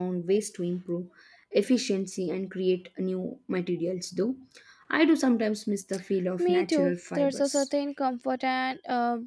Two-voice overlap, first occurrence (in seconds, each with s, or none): 6.4 s